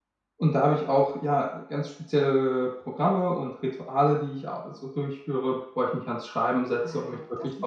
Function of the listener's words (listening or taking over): taking over